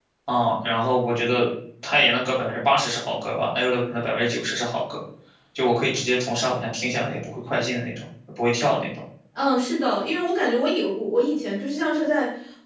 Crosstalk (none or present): none